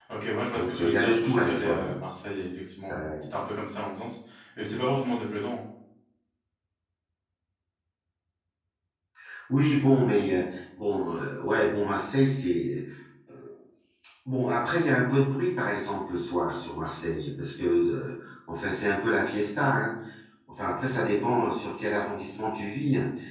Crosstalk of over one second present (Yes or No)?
Yes